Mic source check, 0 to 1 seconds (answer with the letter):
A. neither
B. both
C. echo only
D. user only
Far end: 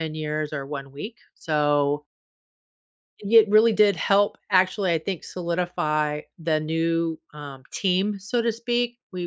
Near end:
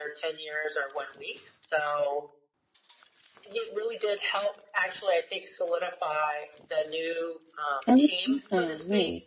C